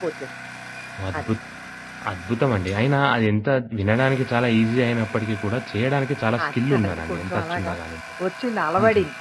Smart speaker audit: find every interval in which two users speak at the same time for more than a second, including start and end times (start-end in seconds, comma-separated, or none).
6.5-7.7